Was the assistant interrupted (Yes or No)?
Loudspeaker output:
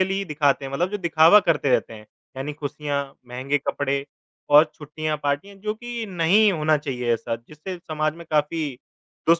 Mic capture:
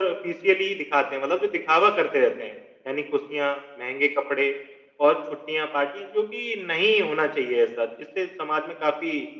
No